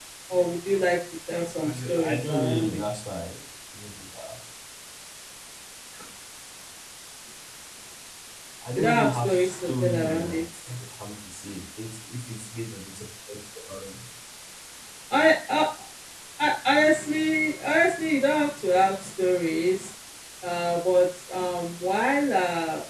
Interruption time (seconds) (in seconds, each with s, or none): 1.6 s